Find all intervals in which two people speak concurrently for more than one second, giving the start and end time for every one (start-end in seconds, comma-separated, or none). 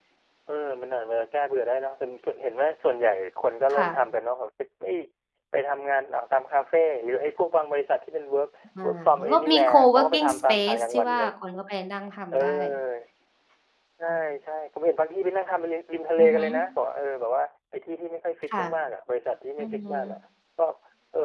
8.8-11.3